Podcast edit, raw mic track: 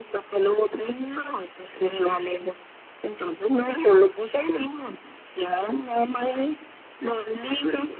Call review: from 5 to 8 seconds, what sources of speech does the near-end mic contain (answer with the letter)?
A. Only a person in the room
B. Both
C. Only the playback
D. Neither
C